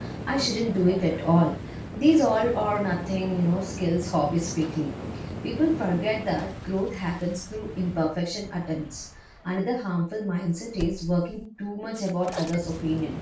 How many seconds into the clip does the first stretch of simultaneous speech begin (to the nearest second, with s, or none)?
none